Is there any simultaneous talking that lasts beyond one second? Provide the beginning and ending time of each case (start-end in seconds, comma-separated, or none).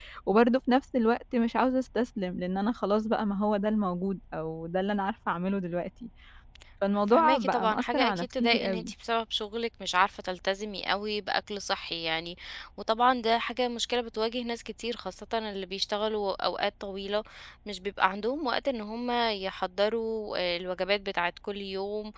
7.1-8.9